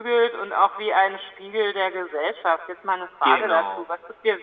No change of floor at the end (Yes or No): Yes